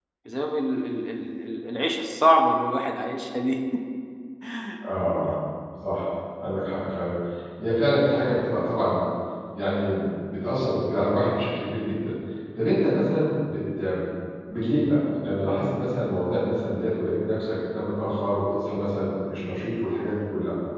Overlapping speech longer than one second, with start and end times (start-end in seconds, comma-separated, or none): none